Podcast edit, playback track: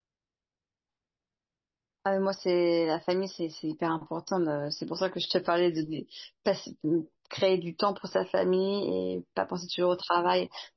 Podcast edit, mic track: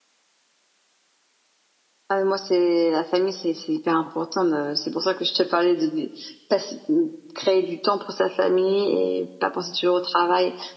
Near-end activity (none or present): none